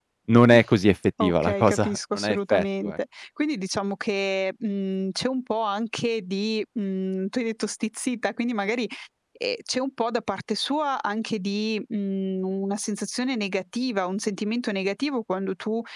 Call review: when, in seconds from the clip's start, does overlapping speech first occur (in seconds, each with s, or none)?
1.2 s